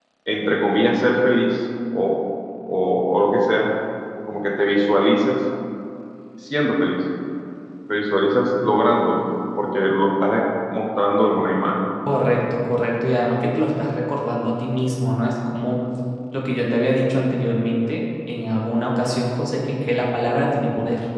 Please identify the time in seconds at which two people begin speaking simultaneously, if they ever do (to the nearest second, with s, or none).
none